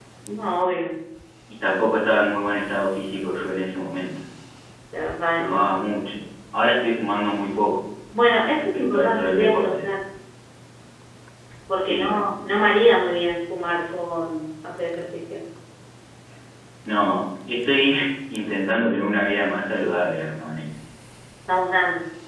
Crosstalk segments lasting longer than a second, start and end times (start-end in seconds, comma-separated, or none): 8.5-9.9